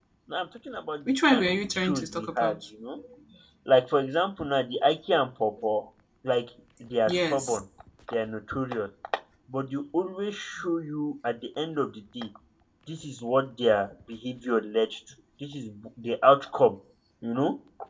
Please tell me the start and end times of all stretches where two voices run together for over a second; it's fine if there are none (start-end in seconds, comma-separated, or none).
1.1-2.5